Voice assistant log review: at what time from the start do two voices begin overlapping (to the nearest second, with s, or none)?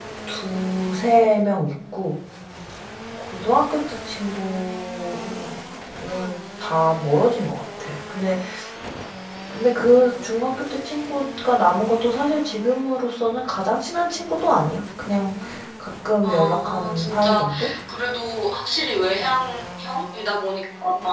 16 s